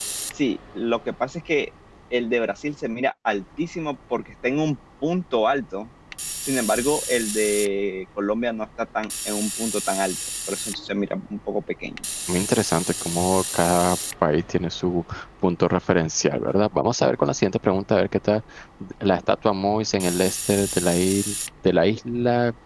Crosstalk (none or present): none